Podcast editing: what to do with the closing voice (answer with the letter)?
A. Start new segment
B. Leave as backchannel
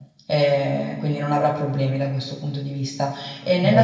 B